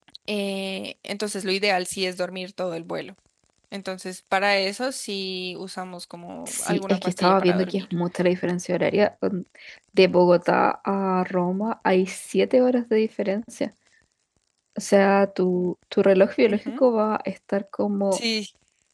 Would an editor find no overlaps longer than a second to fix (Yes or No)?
No